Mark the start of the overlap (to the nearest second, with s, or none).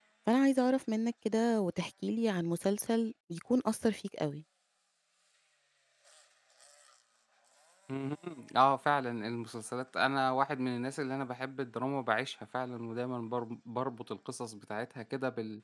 none